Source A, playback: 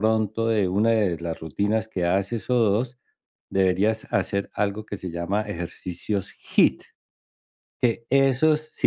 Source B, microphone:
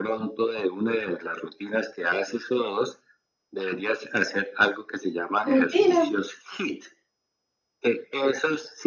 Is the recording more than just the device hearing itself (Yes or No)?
Yes